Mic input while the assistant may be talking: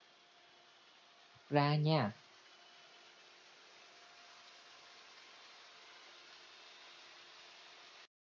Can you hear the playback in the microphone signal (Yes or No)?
No